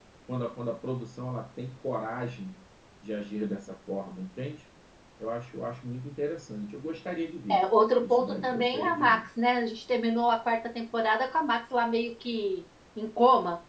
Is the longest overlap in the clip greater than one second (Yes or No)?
Yes